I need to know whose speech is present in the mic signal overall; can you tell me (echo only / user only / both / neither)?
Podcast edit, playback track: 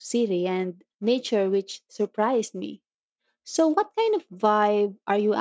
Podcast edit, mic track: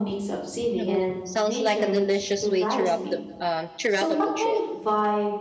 both